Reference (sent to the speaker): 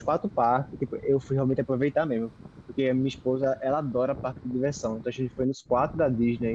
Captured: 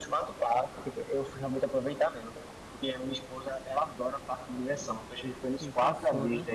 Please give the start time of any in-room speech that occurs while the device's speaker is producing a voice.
5.5 s

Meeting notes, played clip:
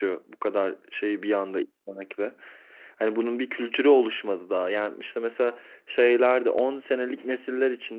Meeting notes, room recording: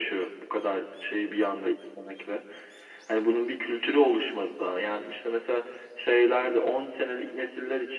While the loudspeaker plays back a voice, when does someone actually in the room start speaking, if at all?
none

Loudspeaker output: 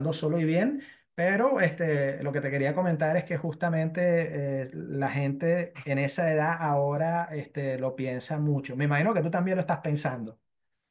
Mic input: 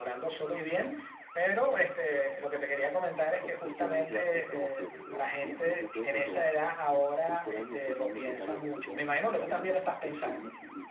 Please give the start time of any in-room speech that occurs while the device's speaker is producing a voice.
3.4 s

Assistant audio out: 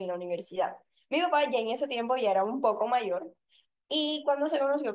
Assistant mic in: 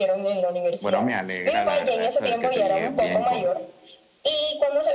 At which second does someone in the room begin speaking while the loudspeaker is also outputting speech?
0.8 s

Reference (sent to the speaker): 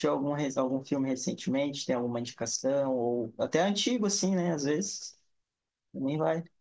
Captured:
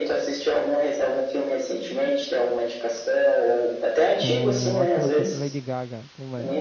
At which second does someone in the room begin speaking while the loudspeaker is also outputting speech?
4.1 s

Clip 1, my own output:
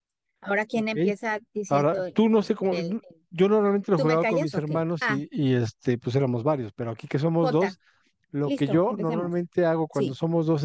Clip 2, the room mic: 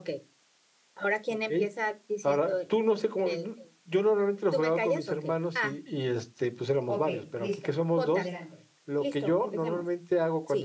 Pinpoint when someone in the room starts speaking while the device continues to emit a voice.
6.9 s

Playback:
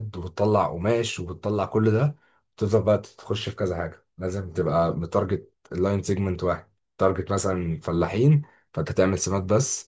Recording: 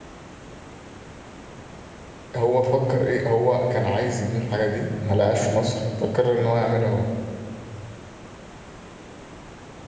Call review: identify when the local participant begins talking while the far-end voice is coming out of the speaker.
2.4 s

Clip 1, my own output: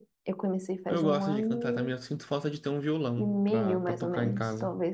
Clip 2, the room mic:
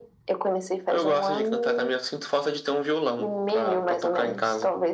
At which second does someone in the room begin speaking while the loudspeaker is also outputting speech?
none

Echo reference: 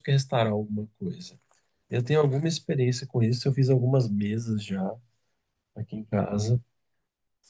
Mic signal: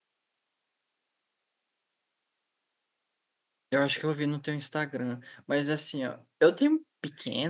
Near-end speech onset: 3.7 s

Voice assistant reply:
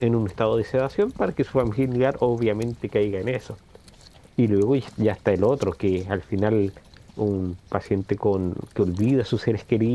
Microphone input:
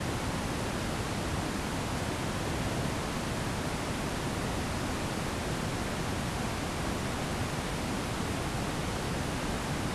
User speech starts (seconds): none

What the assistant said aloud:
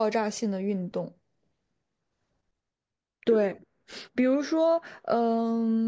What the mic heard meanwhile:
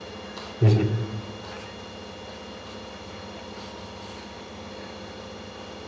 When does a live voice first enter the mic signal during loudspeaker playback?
0.6 s

